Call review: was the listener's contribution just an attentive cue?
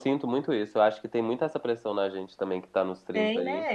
Yes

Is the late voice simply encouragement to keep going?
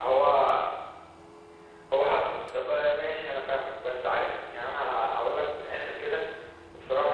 Yes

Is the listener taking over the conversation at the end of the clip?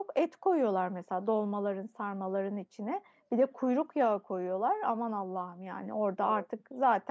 No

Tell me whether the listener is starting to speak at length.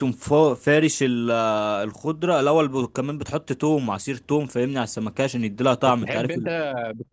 Yes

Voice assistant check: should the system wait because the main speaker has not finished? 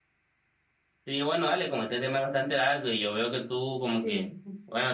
Yes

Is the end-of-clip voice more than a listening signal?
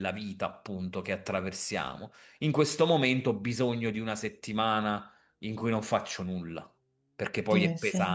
Yes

